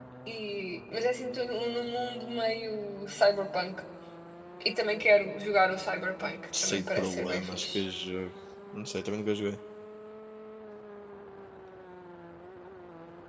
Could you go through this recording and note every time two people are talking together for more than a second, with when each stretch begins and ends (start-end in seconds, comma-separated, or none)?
6.6-7.8